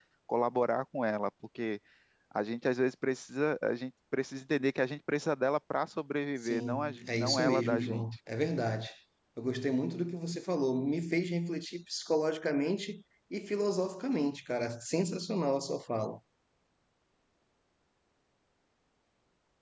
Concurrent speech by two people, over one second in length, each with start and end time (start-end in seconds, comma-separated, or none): 6.4-8.1